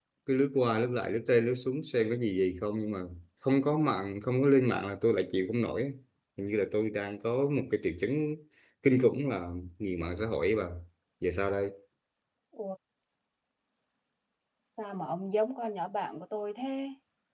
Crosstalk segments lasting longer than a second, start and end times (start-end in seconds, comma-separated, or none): none